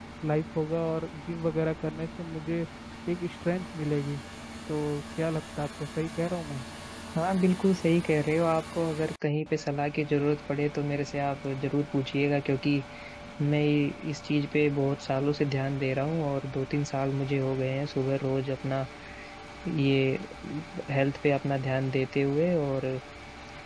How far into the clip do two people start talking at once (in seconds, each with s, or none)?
none